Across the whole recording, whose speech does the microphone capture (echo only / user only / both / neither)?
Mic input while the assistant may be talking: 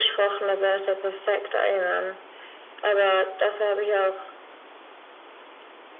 echo only